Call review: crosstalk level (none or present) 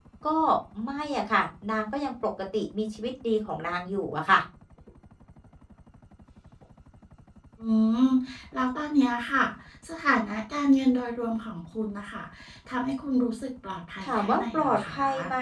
present